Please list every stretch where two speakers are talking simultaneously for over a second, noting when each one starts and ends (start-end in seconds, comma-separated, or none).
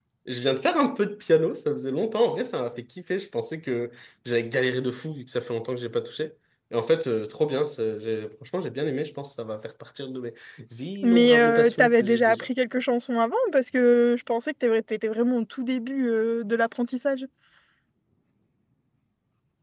11.0-12.5